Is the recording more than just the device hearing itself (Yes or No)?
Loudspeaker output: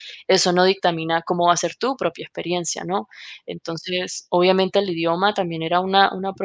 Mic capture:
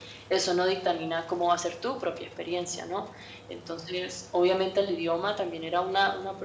No